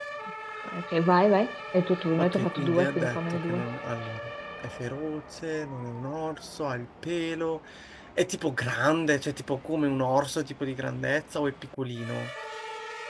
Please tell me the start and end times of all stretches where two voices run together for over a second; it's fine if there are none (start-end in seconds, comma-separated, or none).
2.2-3.6